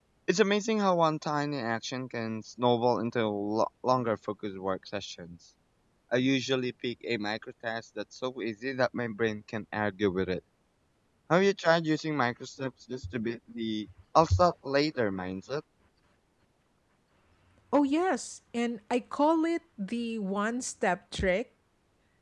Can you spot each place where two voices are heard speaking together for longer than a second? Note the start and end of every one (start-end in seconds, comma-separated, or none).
none